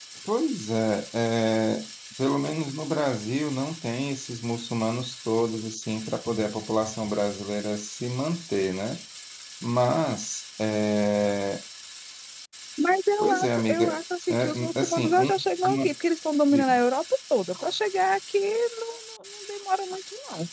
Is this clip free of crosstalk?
No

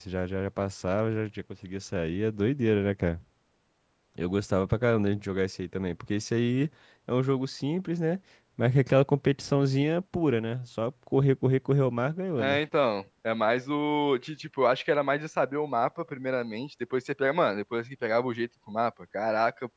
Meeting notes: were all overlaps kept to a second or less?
Yes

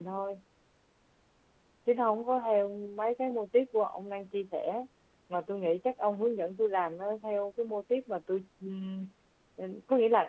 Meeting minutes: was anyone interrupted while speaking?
No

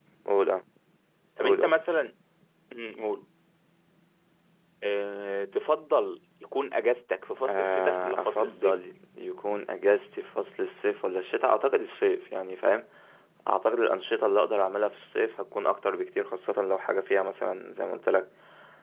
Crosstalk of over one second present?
Yes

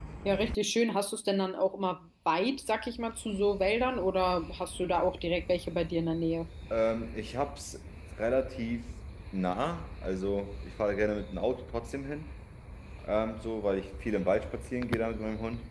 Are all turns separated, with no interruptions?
Yes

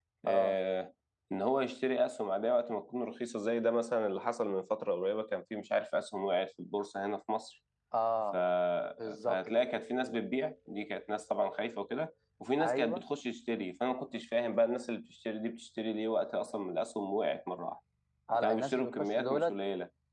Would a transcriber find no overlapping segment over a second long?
No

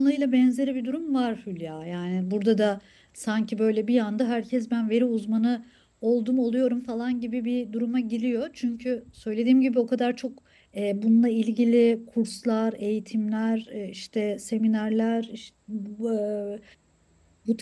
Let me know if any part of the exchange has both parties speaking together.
No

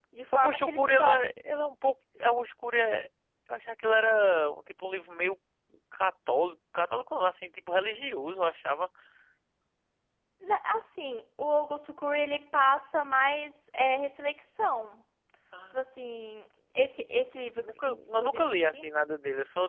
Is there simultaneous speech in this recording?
Yes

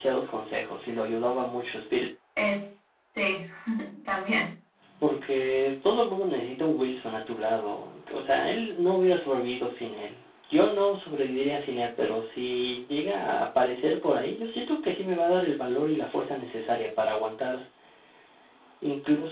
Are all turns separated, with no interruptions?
Yes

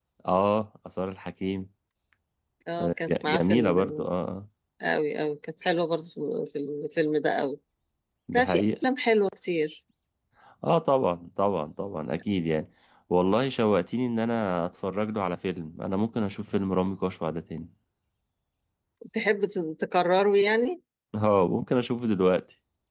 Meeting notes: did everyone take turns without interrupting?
No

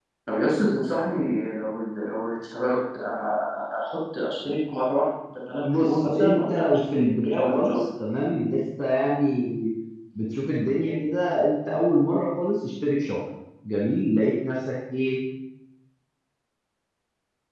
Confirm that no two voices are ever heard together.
No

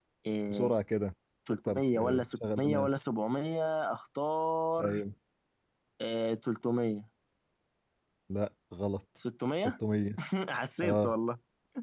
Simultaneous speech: Yes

